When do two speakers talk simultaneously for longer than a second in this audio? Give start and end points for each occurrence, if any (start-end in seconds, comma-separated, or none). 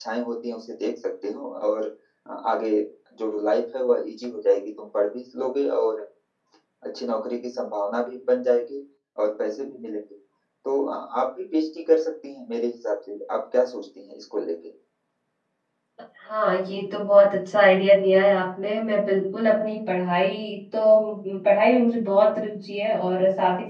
none